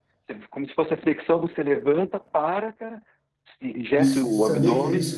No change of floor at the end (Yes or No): No